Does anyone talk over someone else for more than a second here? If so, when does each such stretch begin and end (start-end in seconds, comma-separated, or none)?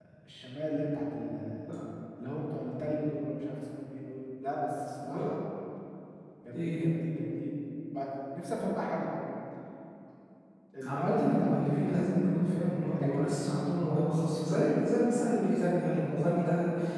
10.9-13.6